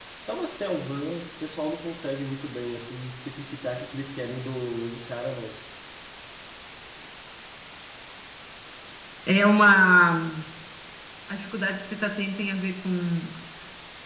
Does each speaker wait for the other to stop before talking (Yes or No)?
Yes